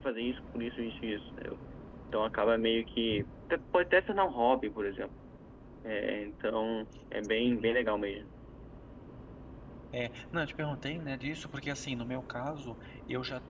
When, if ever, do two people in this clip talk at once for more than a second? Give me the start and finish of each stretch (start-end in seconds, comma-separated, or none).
none